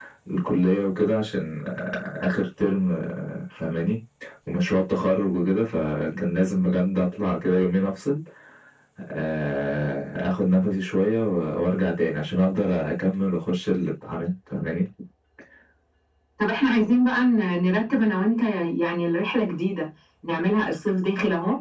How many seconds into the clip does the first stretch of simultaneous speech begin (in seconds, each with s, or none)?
none